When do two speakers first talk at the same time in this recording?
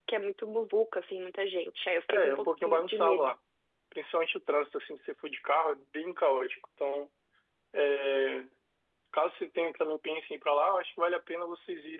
2.1 s

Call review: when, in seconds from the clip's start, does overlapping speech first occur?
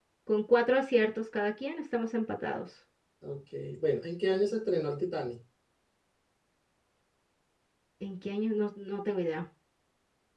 none

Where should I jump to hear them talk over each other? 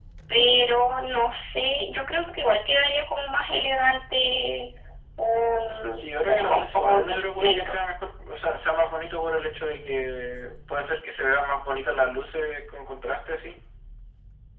6.0 s

